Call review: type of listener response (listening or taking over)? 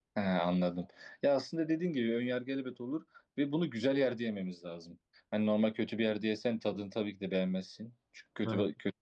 listening